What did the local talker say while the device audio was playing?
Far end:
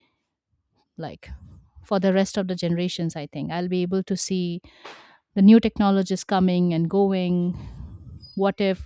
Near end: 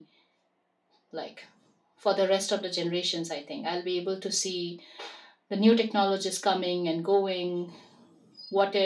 none

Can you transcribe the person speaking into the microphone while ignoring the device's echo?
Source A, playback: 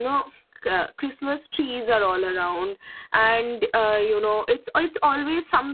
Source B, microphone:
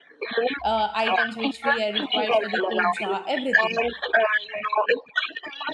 uh, items which we are required for the puja everything

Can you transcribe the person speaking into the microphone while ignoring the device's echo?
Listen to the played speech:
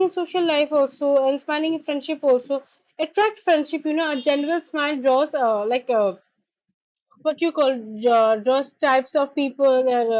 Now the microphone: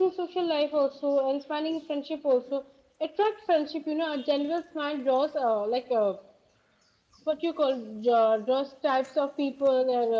none

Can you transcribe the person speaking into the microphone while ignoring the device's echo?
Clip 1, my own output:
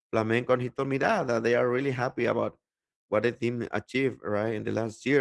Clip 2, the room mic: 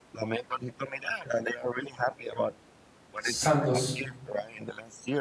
Santos,

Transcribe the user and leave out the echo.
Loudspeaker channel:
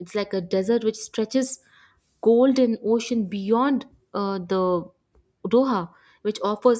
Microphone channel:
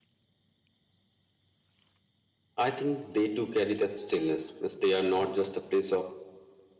i think they too carry that stillness Means they are not just a place of

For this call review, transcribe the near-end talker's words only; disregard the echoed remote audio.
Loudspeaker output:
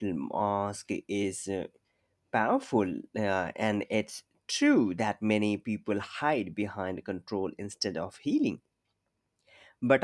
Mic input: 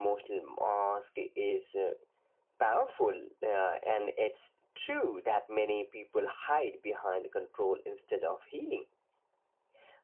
none

